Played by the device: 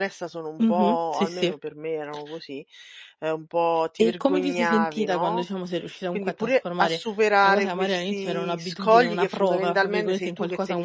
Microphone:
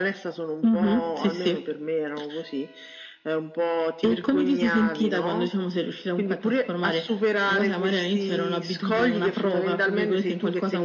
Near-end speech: none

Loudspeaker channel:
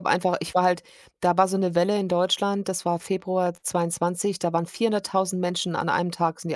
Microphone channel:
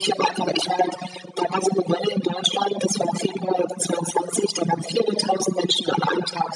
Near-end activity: none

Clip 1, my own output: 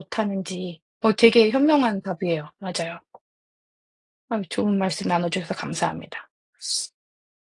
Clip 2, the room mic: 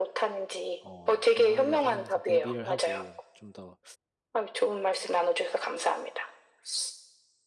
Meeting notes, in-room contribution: present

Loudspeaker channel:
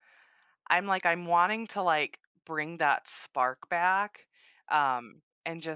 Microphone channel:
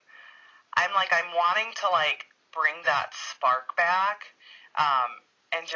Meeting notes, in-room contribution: none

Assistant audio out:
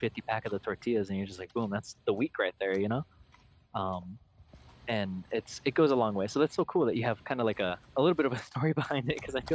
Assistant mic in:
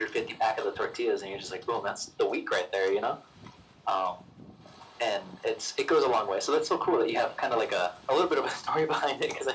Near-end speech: none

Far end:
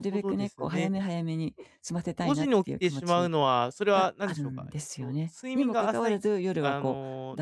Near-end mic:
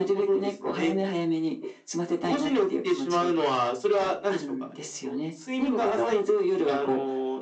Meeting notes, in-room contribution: none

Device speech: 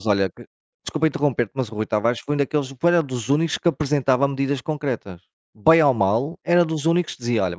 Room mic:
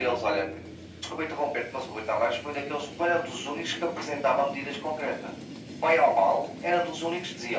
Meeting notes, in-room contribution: none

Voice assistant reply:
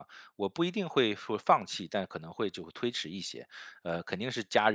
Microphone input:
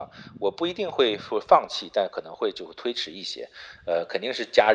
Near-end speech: none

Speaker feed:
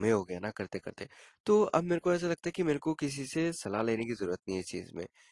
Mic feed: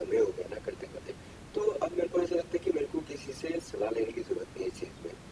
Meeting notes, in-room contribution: none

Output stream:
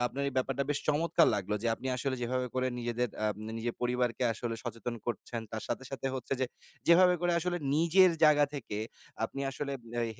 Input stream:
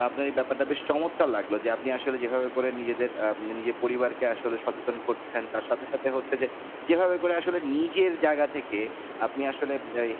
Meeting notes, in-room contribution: none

